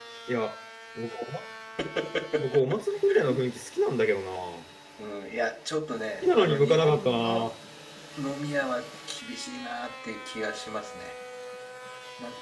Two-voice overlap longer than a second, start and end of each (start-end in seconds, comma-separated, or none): 6.2-7.5